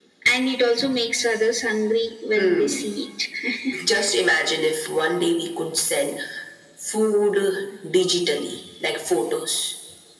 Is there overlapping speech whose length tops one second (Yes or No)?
No